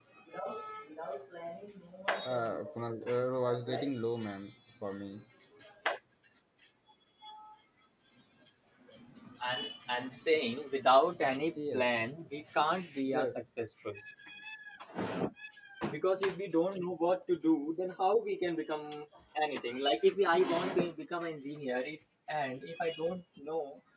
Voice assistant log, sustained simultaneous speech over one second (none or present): present